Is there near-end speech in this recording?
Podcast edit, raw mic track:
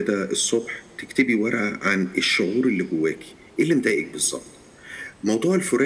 No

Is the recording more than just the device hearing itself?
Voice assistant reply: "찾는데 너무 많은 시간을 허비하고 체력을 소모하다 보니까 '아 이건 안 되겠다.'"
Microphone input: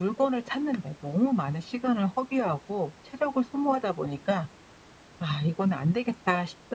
No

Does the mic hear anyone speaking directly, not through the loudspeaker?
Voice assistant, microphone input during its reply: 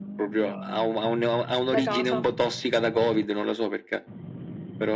Yes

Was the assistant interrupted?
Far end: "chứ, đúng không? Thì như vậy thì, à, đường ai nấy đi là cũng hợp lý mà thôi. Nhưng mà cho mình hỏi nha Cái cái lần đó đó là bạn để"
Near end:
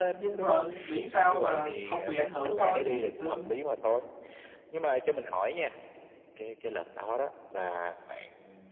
Yes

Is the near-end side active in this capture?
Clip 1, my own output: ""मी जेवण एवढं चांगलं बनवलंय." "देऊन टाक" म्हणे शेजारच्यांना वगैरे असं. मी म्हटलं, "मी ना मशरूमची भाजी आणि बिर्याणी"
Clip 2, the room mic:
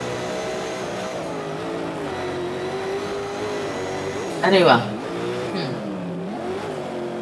Yes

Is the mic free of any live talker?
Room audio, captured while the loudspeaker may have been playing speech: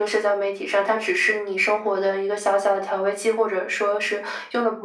Yes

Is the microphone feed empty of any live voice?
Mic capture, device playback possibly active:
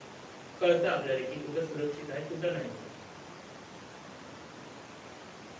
No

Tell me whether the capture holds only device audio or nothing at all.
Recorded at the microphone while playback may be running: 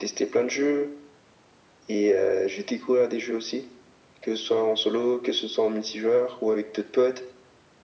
Yes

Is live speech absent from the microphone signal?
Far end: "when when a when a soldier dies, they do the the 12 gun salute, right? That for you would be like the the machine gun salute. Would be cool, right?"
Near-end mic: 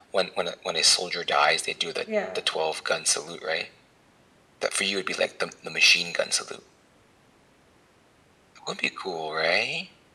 No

